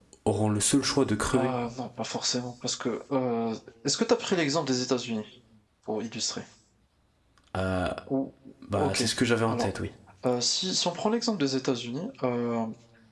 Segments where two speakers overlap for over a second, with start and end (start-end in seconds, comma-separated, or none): none